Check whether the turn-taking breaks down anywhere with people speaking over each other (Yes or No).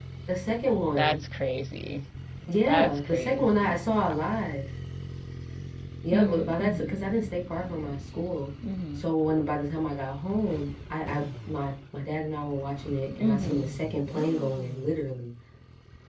Yes